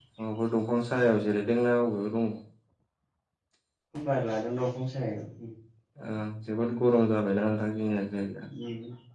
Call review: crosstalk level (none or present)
none